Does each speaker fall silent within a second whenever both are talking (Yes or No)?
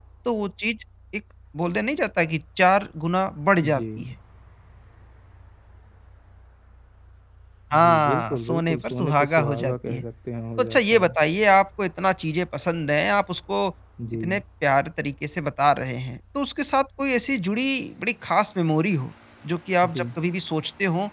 No